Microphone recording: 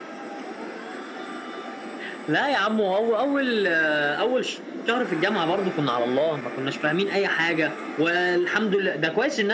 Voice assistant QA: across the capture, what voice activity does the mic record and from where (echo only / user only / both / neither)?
echo only